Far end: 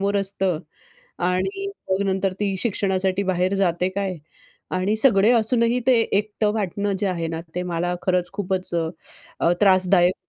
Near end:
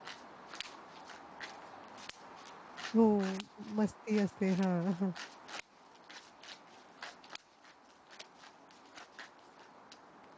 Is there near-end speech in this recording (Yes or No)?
Yes